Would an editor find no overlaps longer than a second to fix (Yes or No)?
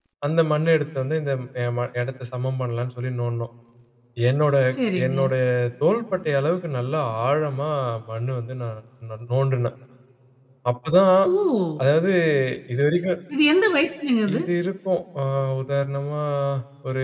Yes